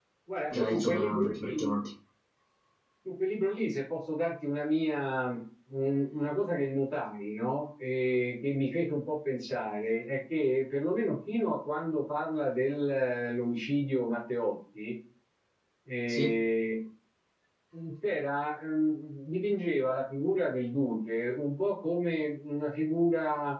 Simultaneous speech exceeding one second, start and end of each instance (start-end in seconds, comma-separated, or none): 0.5-1.8